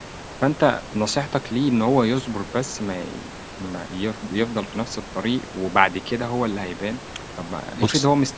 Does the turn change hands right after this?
No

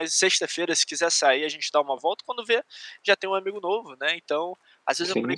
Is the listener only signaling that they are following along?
Yes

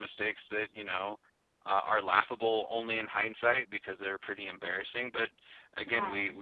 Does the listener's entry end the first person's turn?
No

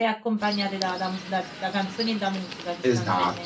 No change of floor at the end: No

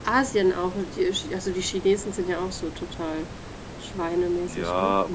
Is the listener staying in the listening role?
No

